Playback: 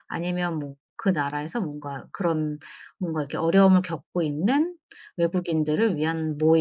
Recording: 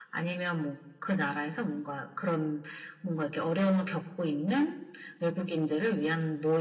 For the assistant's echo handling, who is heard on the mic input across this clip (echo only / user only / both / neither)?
echo only